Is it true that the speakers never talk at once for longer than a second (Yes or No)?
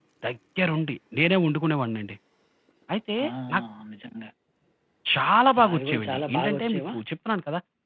No